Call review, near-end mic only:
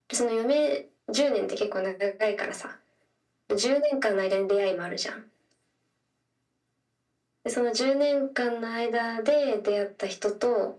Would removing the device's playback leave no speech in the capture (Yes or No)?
Yes